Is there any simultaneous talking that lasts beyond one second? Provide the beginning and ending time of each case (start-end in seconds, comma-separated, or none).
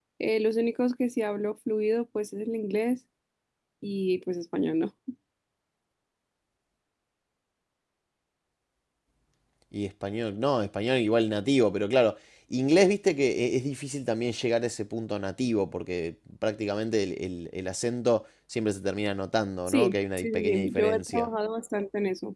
19.7-21.3